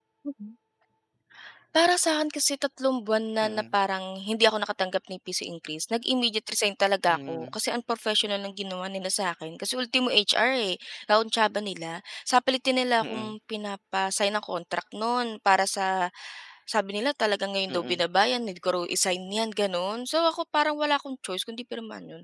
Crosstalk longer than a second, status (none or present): none